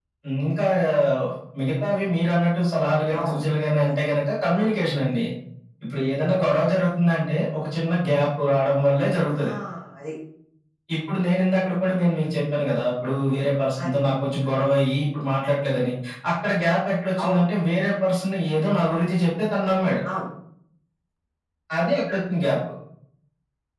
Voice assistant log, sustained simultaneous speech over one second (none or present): none